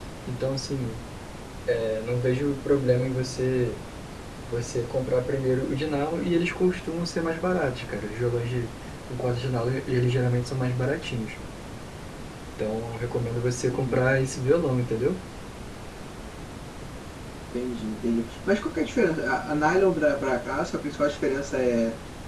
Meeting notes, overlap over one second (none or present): none